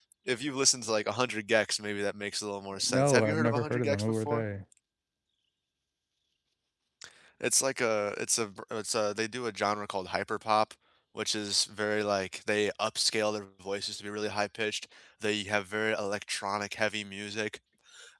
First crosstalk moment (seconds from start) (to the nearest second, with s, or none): 3 s